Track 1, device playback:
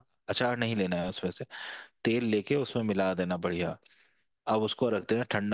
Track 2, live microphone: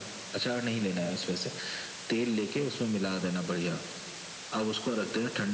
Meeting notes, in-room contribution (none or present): none